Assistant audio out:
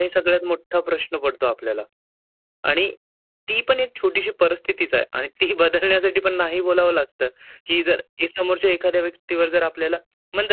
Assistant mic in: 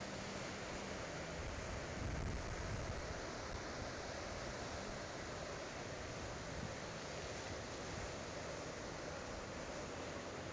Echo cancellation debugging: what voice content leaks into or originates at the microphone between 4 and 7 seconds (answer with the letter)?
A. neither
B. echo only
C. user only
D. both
A